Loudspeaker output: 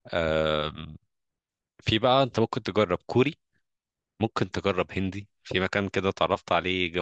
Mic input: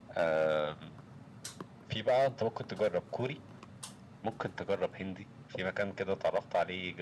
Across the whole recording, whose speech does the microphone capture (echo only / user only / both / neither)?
echo only